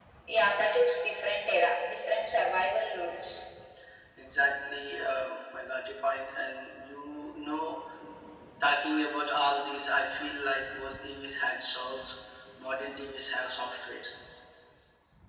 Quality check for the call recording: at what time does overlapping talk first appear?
none

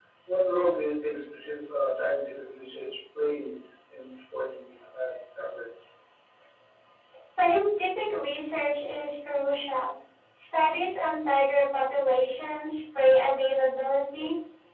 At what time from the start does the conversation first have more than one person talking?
none

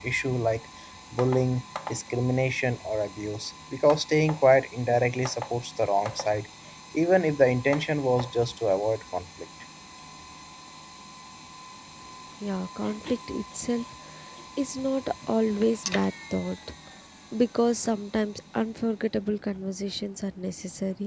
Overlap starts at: none

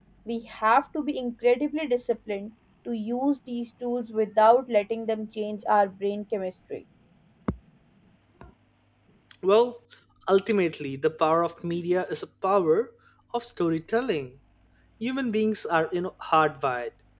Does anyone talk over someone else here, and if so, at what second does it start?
none

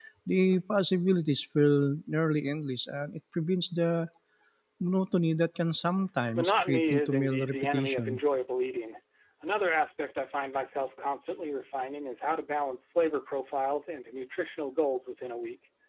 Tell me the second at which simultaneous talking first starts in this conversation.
6 s

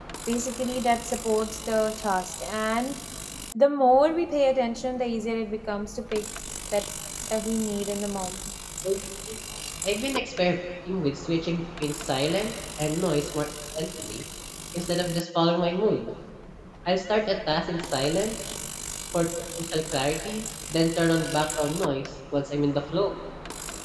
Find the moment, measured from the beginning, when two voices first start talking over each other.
none

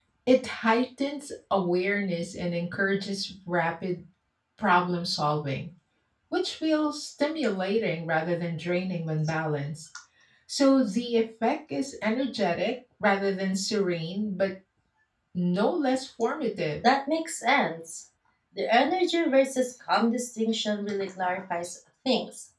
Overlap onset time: none

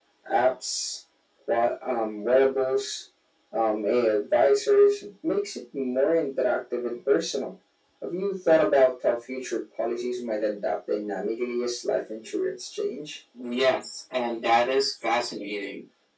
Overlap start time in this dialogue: none

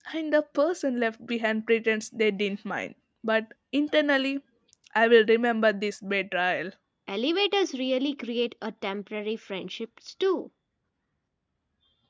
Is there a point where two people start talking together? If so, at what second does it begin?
none

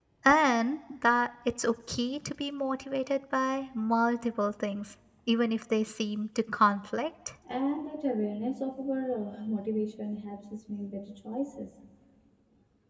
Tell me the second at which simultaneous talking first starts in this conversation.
none

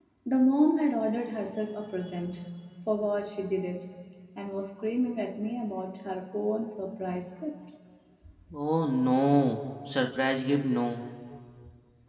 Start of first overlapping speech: none

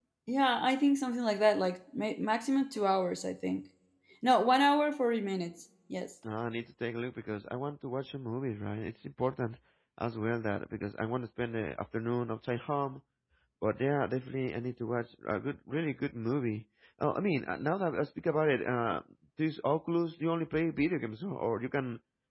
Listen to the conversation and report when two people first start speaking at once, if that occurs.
none

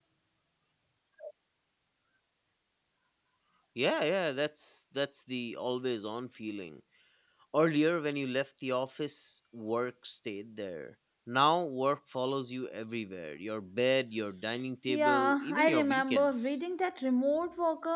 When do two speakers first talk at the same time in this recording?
15 s

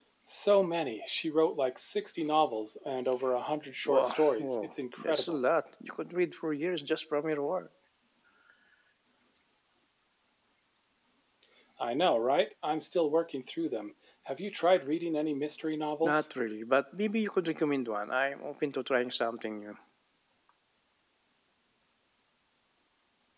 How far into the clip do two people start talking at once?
4 s

